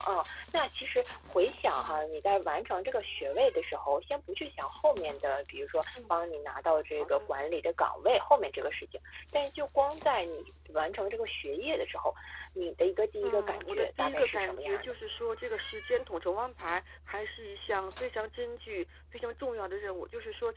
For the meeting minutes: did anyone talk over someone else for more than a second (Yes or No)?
Yes